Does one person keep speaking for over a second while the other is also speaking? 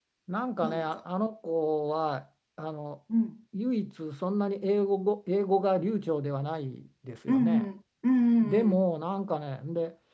No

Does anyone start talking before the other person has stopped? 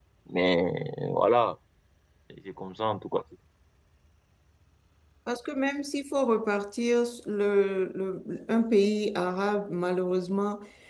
No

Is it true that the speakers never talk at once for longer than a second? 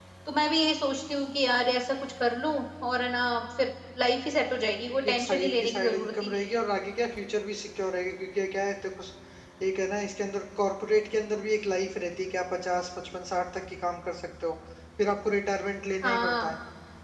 No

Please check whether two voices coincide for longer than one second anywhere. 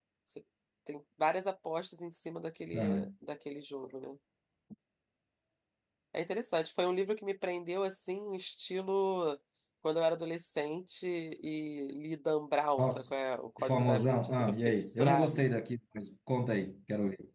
Yes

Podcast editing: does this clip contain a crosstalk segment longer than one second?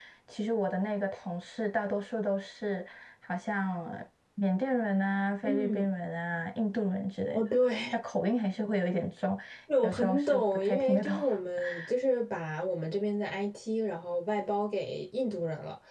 Yes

